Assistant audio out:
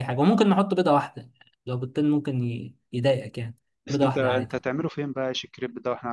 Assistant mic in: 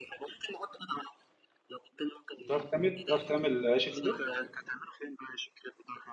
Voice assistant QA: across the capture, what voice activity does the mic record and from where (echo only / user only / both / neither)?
both